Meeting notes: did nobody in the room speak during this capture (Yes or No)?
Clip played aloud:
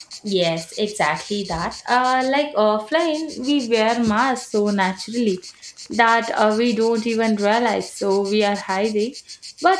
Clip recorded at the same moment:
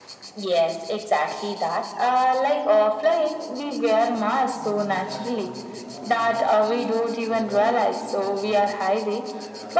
No